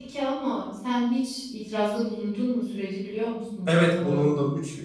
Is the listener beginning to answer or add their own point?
Yes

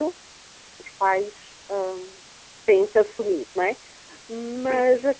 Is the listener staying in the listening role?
Yes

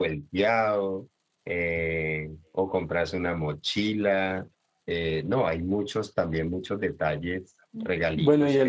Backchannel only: No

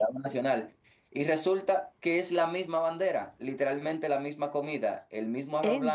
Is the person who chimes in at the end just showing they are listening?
Yes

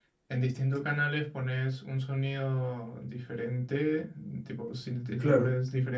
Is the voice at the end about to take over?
No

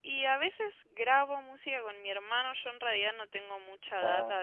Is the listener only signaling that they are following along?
Yes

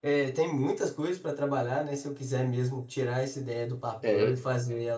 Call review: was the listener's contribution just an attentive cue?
Yes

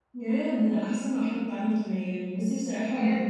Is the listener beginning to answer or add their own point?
No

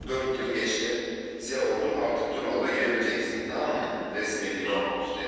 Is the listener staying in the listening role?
Yes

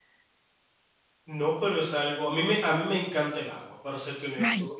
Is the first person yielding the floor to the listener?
No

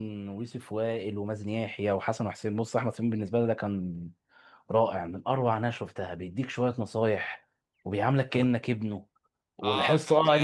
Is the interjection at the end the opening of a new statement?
Yes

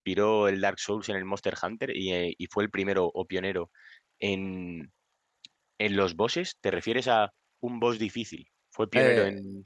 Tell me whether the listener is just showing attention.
No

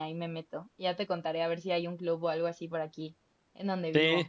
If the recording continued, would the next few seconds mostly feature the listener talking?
Yes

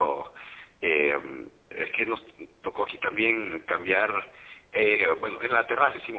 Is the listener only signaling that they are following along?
Yes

